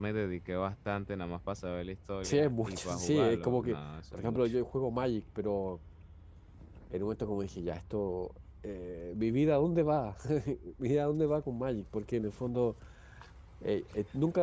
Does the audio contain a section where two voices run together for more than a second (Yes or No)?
Yes